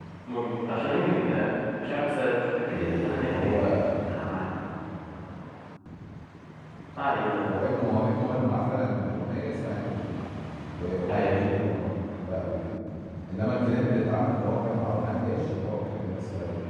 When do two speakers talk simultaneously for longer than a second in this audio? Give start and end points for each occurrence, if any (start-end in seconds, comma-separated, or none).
2.7-3.9